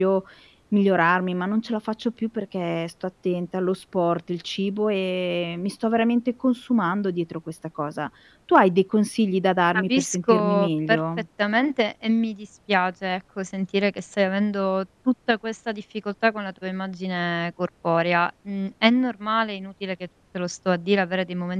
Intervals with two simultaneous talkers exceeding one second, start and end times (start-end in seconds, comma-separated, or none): 9.7-11.0